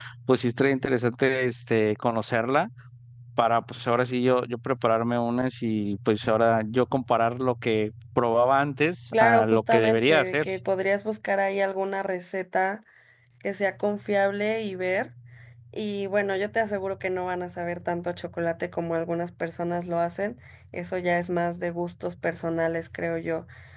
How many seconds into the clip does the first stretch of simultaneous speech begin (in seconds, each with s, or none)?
9.1 s